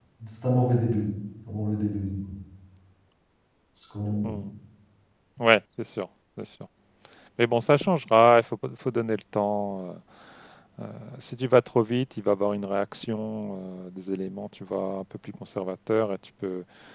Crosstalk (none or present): none